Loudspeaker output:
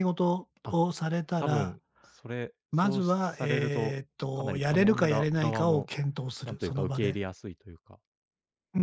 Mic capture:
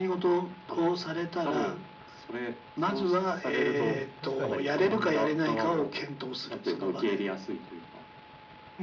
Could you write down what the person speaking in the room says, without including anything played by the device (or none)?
うん、確かに、そうや